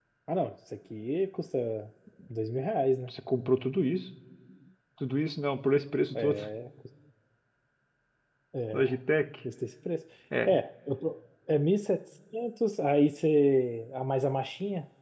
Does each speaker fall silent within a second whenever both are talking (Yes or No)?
Yes